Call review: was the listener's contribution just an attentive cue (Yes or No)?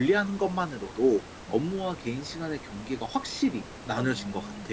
No